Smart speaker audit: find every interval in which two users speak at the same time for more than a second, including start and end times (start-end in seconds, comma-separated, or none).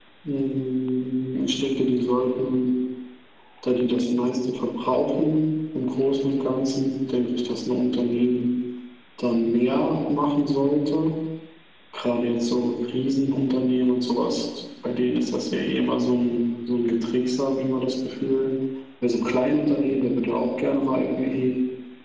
none